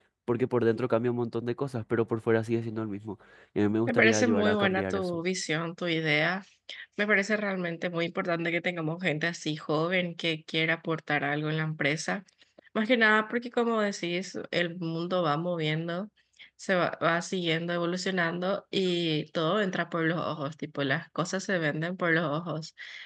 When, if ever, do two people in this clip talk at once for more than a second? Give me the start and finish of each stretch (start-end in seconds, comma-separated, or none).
3.9-5.2